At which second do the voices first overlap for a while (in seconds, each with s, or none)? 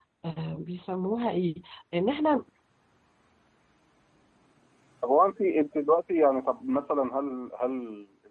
none